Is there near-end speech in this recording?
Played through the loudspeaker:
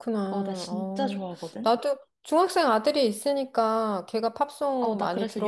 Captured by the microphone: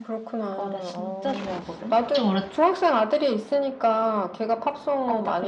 Yes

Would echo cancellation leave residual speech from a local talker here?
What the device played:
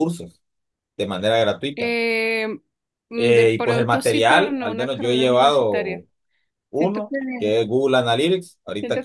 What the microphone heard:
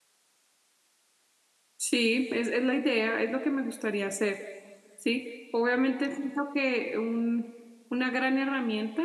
Yes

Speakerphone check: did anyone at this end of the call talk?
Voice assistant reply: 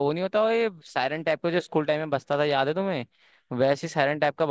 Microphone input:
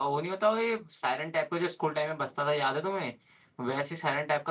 No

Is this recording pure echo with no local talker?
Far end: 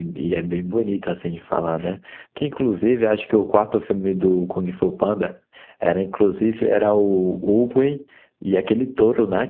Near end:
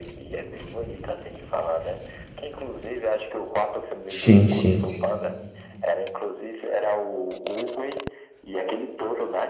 No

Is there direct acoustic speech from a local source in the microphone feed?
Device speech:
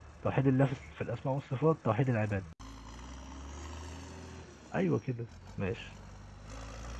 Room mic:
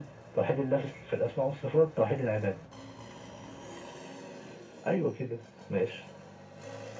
No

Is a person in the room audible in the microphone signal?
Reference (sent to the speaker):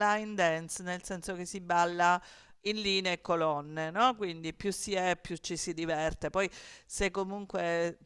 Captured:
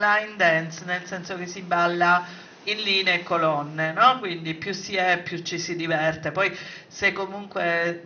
No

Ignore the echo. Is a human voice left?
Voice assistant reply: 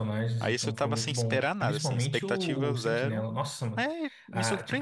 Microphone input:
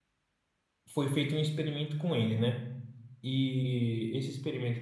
Yes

